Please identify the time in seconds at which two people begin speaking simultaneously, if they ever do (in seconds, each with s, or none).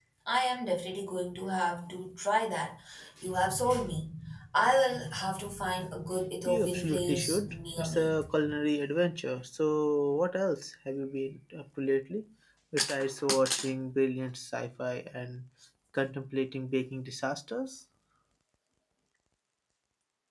6.4 s